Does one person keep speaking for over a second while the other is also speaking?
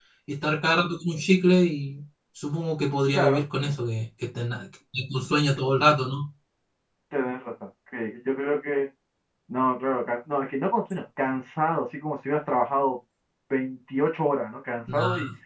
No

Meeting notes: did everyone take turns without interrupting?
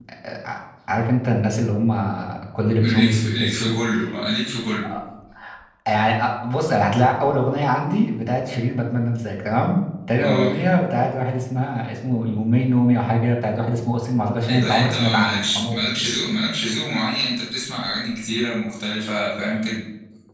No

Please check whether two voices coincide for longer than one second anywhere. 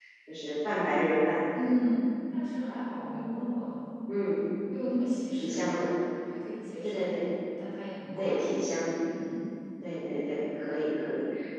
No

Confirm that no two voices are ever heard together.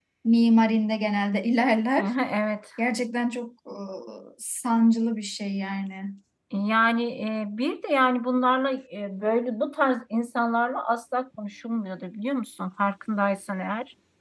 Yes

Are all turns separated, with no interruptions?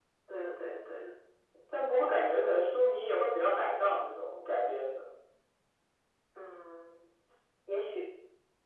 Yes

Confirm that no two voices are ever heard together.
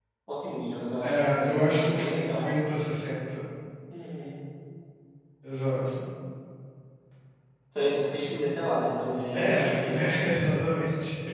No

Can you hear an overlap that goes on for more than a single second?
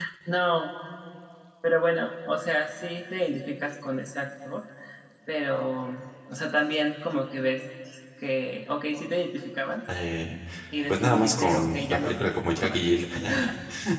Yes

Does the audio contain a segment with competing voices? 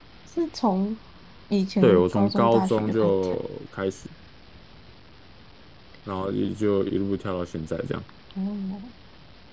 Yes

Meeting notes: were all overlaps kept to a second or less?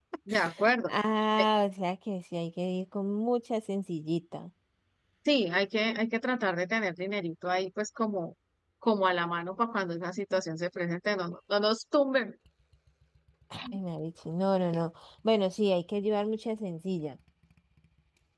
Yes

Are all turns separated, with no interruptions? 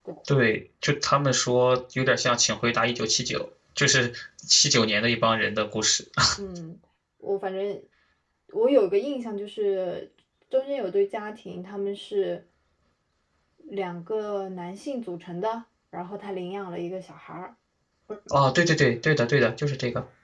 Yes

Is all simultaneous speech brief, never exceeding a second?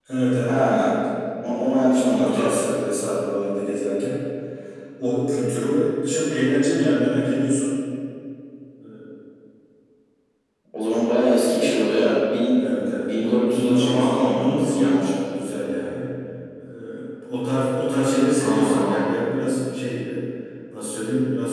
No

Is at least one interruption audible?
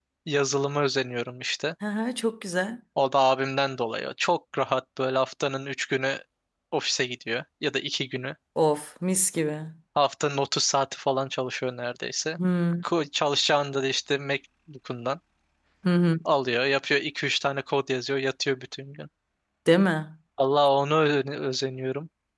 No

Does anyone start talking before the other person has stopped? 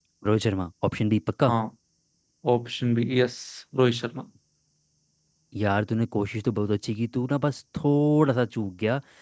No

